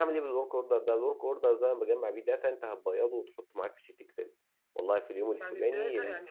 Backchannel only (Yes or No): No